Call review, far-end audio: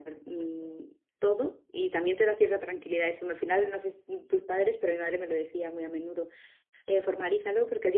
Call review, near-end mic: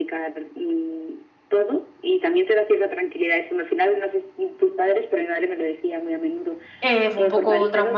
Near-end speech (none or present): present